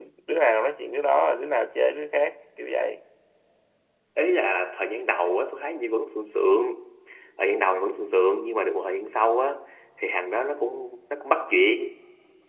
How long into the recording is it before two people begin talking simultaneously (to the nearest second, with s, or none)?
none